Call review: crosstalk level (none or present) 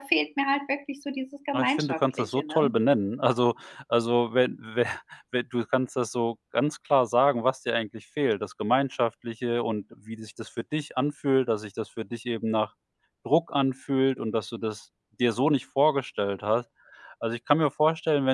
present